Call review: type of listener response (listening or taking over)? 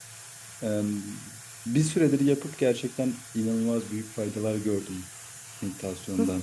taking over